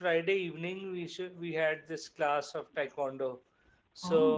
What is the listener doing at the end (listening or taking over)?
listening